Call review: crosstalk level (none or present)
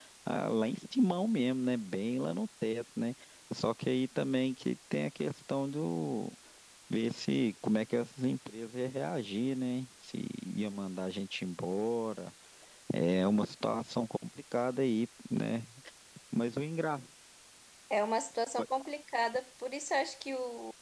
none